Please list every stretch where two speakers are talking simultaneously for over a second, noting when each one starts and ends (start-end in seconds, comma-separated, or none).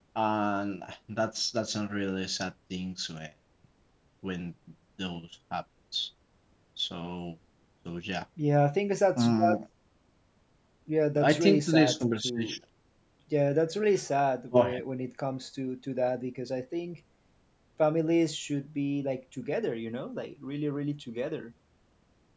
11.2-12.6